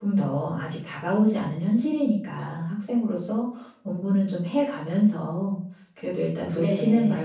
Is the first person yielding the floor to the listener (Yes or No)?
No